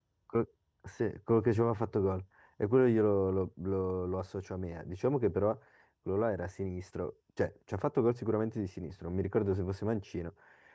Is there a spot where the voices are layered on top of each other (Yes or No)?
No